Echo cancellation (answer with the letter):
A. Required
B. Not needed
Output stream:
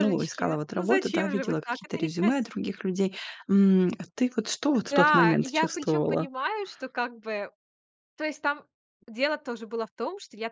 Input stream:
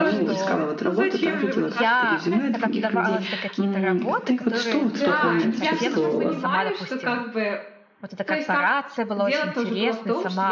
A